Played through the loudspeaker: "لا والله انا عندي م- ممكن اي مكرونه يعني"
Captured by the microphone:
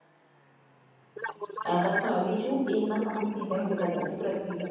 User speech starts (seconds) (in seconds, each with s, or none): 1.7 s